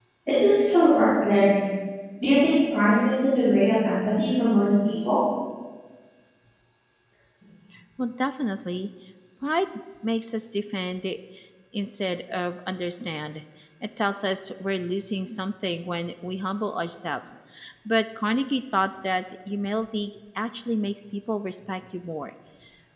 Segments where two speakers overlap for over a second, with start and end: none

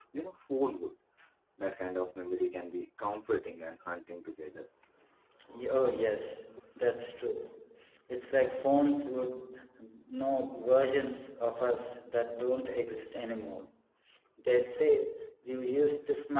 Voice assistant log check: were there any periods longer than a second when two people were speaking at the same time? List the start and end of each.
none

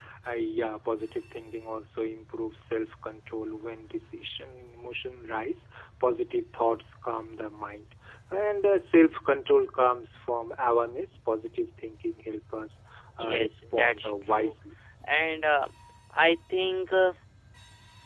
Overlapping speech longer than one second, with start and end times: 13.2-14.5

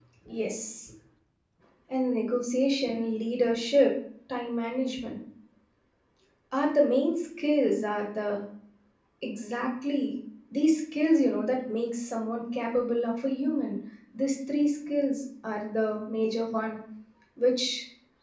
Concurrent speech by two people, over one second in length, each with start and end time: none

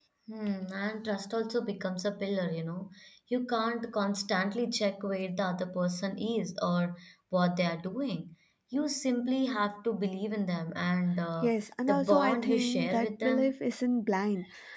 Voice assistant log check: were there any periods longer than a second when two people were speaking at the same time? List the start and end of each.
11.9-13.6

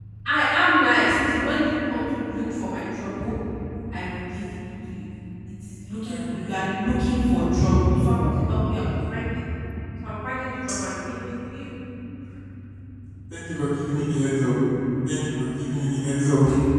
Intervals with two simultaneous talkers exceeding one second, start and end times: none

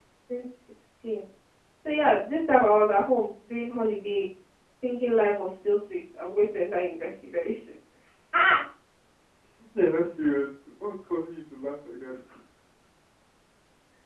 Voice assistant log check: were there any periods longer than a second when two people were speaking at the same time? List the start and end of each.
none

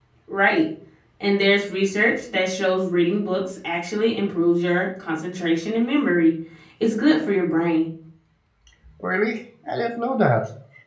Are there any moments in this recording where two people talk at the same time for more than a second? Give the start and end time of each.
none

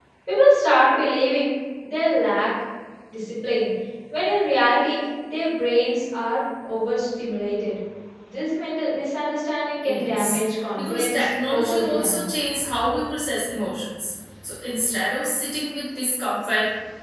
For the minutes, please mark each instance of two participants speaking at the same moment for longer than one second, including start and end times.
10.8-12.3

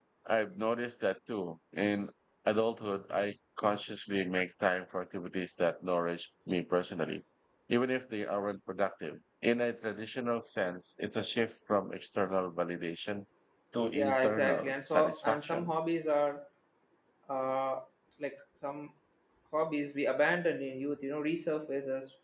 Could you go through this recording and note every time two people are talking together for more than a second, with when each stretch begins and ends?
13.9-15.7

